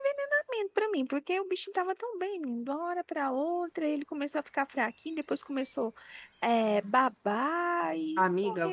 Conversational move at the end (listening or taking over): taking over